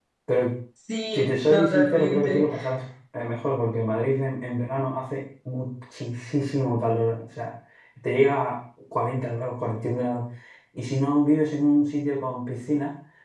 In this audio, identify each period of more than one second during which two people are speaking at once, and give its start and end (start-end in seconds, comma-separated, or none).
1.1-2.5